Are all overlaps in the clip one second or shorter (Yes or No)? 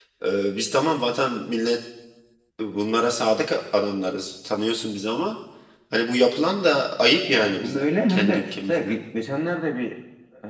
No